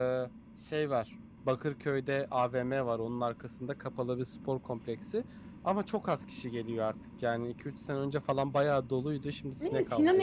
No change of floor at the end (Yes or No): No